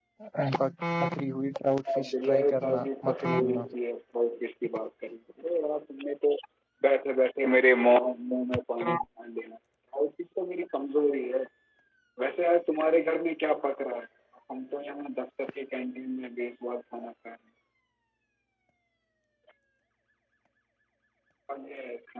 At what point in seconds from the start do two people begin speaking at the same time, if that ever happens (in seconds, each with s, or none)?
1.9 s